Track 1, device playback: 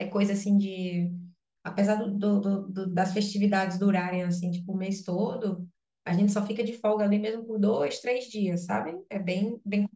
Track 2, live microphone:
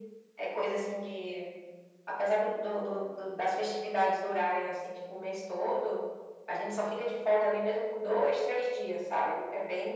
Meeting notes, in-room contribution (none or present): none